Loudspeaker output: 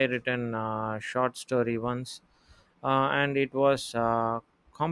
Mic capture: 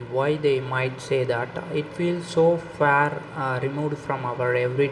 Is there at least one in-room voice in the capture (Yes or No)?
Yes